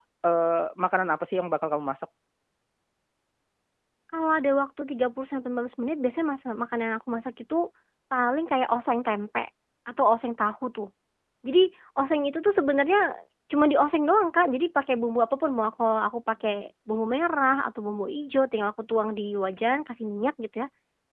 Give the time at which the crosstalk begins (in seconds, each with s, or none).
none